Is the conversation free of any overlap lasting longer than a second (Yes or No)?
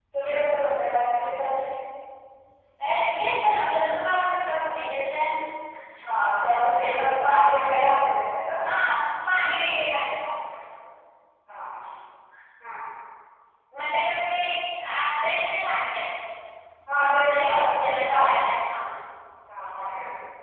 No